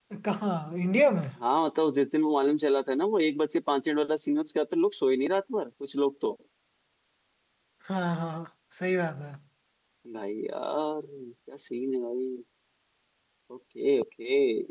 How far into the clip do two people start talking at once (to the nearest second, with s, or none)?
none